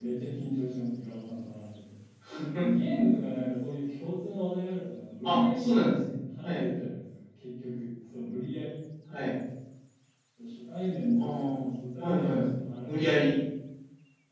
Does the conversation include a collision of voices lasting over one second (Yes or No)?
No